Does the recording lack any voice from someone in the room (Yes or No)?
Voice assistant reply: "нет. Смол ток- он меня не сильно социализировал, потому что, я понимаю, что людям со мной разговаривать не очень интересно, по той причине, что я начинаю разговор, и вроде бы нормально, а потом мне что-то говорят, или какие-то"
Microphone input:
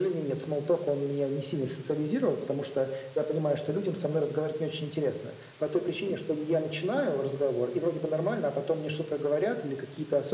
Yes